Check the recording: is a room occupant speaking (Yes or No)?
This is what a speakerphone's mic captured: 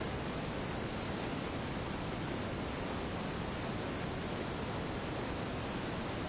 No